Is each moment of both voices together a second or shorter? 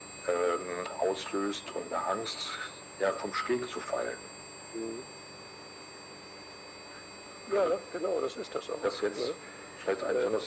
Yes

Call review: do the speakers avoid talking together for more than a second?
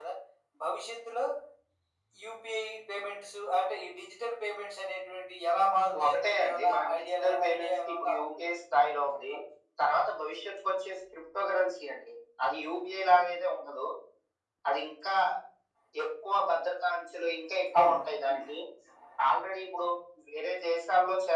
No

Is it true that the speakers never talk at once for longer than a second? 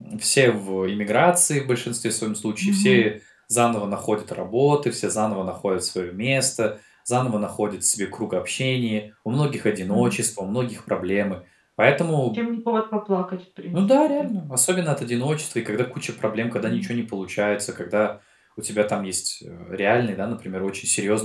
Yes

